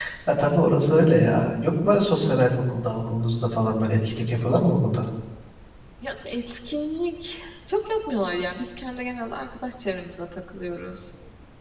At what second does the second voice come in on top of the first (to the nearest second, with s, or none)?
none